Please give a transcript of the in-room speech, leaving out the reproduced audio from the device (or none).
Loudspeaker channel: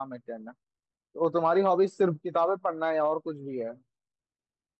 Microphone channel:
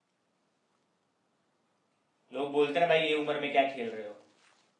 लोग बोलते ना भाई ये उम्र में क्या खेल रहे हो